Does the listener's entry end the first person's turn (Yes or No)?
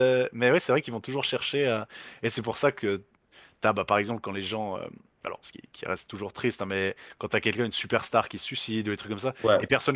No